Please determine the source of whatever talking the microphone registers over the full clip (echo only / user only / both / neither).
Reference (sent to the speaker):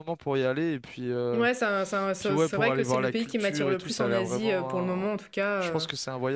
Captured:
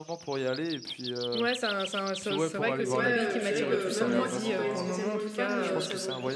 both